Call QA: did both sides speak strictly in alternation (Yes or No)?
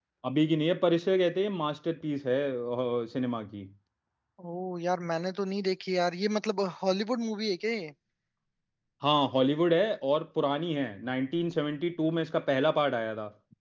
Yes